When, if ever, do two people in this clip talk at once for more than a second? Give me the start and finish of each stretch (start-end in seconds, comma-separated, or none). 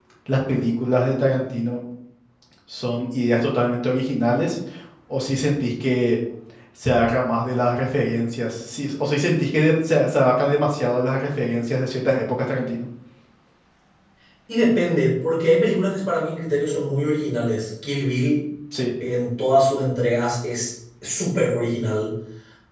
none